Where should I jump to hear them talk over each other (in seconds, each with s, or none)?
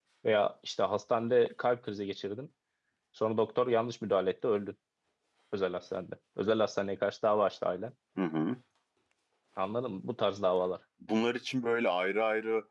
none